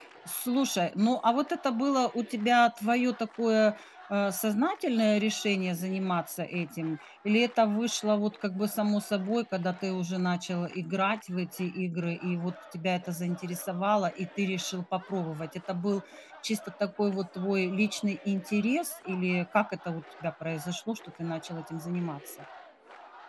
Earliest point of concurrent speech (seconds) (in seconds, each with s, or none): none